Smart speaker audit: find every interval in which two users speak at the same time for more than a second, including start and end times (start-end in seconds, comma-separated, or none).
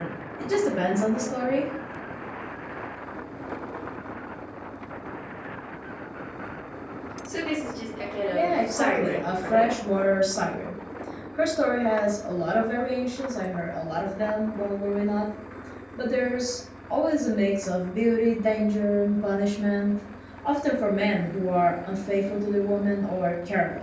8.3-9.7